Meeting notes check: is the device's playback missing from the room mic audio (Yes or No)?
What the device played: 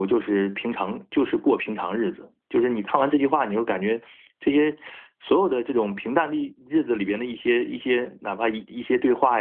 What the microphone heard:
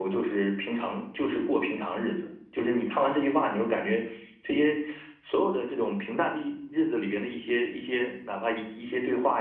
No